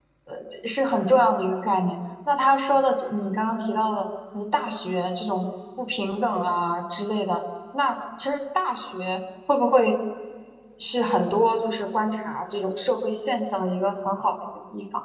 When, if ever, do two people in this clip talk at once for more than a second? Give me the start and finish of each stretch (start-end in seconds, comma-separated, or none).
none